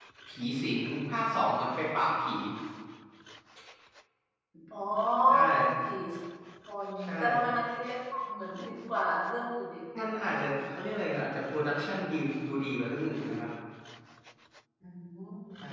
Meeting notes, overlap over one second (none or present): none